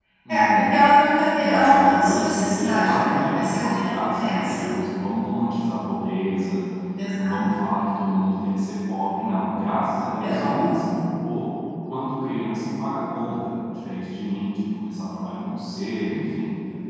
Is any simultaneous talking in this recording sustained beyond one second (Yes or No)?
Yes